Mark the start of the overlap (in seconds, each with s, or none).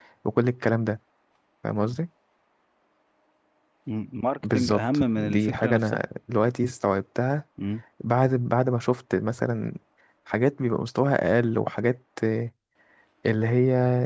4.4 s